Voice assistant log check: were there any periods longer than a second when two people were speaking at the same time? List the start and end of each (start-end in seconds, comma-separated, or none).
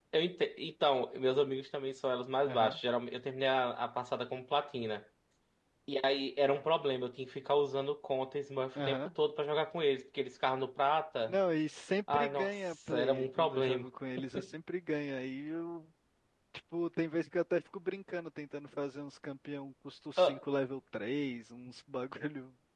12.1-13.9